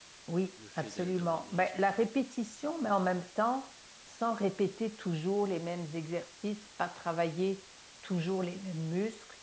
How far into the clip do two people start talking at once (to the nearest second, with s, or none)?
1 s